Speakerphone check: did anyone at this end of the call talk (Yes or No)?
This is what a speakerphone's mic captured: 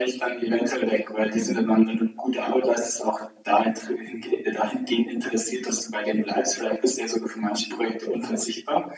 Yes